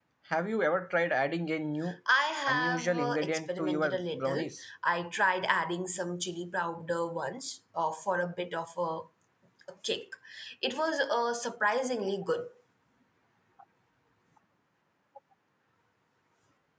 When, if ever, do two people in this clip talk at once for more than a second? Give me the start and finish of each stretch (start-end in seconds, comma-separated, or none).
2.5-4.5